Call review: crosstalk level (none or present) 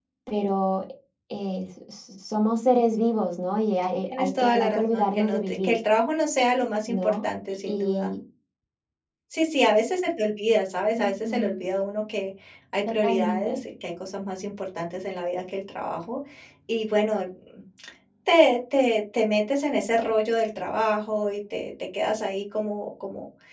present